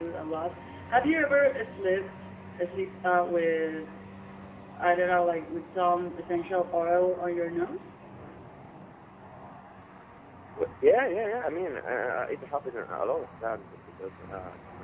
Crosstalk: none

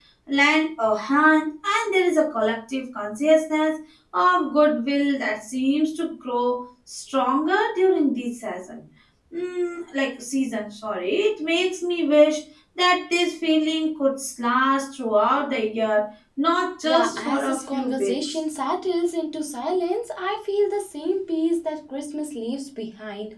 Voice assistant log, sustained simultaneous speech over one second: present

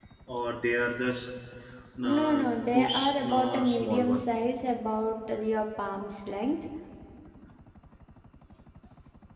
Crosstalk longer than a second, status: present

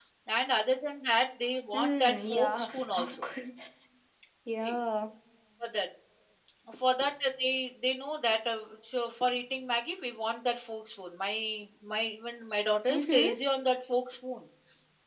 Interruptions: present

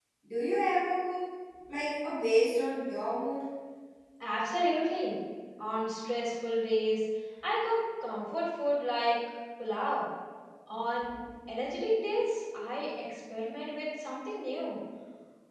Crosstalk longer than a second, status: none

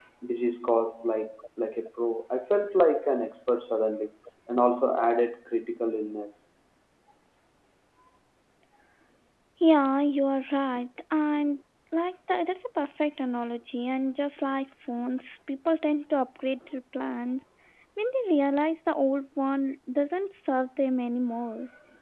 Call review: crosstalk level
none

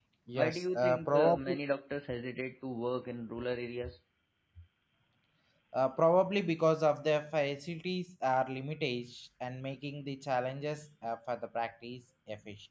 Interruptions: present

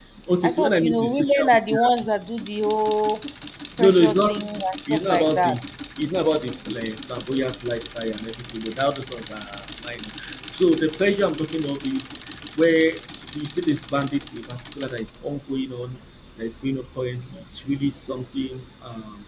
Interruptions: present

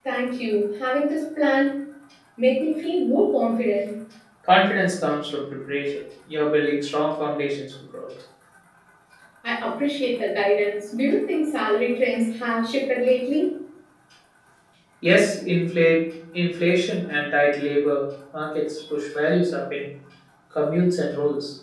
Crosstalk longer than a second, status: none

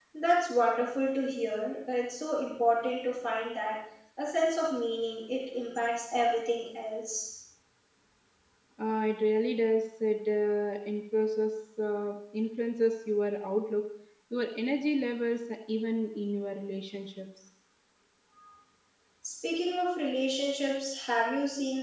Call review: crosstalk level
none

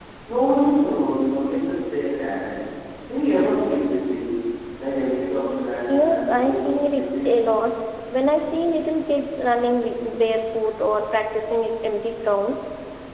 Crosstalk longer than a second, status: present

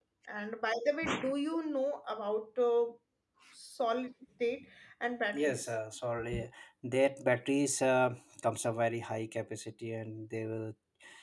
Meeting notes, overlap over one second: none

